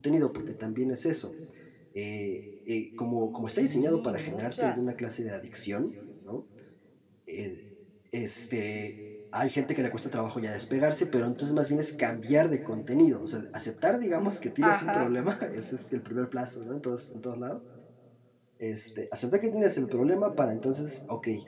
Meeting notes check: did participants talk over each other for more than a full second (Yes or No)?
Yes